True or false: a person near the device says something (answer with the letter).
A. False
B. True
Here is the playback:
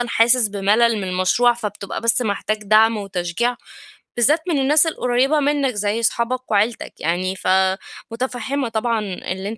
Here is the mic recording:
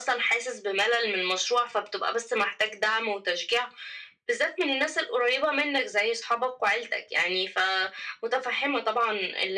A